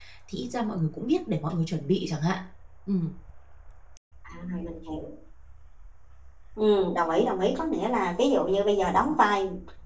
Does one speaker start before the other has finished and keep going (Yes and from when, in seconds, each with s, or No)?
No